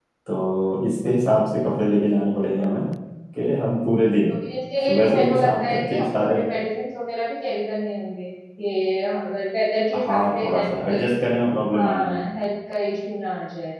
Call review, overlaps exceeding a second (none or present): present